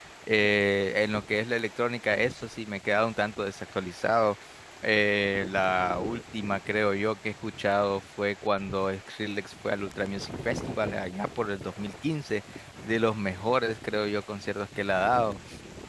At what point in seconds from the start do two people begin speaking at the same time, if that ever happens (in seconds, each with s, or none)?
none